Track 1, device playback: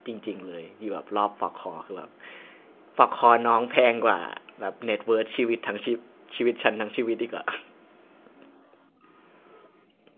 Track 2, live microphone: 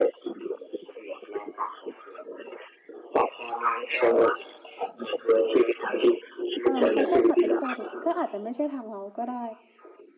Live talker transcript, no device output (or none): เออเขาชอบสัตว์เอกโซติกก็อาจจะไม่ใช่ทางเราก็ได้